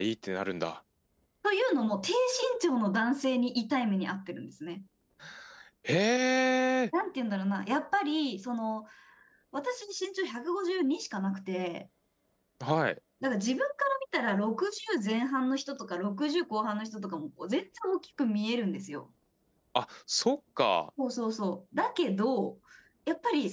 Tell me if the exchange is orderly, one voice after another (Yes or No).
Yes